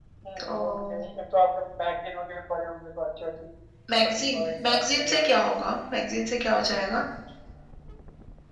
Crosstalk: present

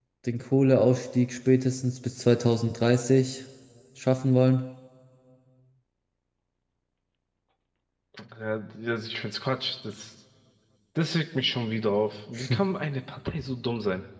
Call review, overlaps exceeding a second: none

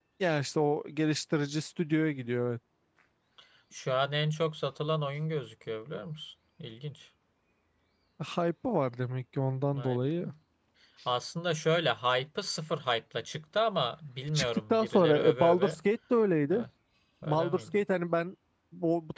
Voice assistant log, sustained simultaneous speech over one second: present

